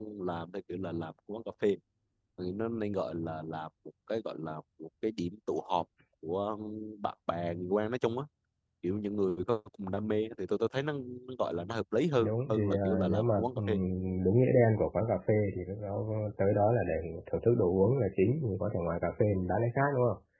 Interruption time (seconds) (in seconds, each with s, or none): 12.2 s